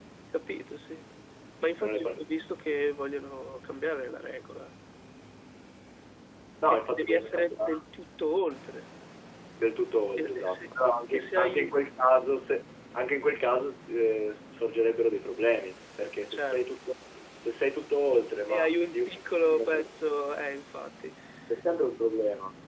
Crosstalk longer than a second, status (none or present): present